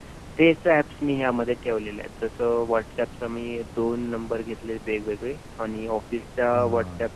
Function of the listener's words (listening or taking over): listening